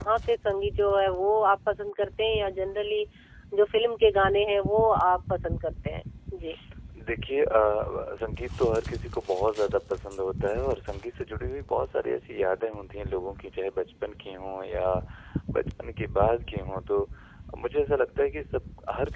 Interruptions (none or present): none